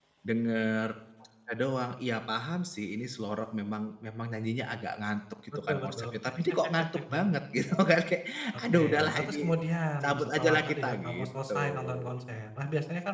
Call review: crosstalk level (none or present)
present